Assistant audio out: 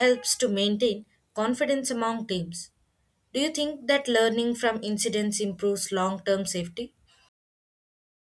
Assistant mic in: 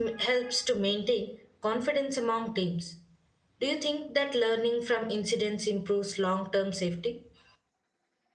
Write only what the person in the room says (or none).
none